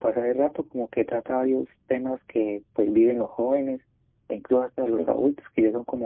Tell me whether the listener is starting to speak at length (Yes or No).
No